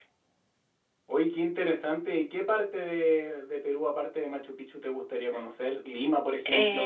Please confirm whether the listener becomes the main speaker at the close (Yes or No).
Yes